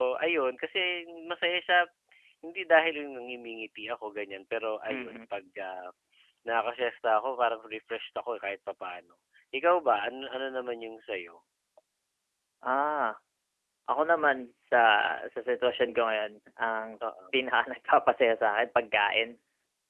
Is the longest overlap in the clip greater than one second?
No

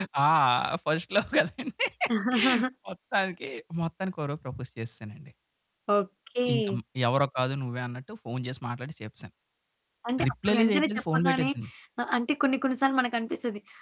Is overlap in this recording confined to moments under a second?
No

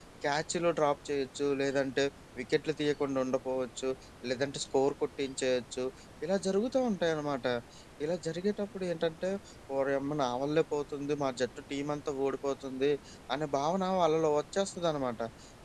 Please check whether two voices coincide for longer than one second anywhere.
No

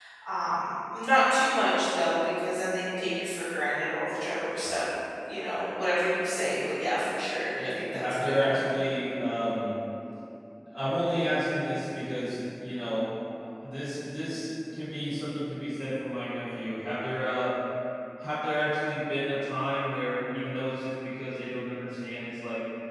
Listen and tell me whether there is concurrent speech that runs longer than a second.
Yes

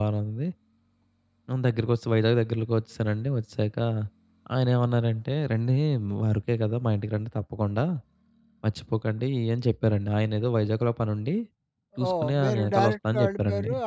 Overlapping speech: Yes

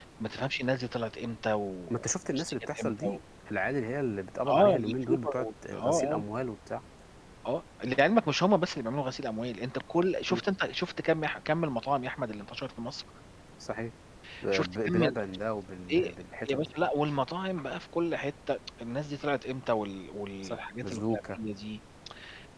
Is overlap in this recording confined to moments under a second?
No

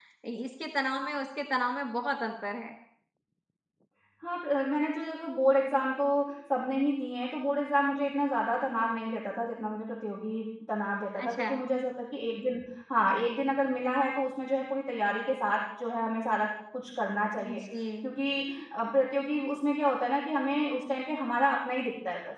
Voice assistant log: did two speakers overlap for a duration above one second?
No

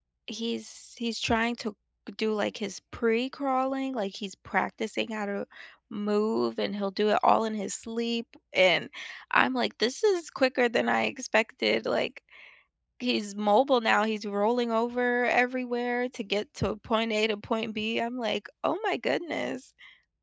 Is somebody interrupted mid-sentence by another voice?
No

